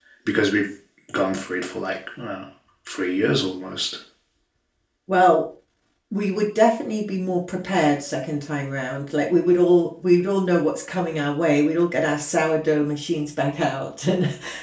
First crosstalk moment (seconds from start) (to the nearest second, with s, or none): none